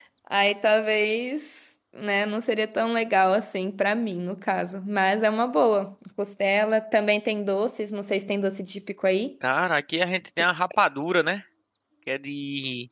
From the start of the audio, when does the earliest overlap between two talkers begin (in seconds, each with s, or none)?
none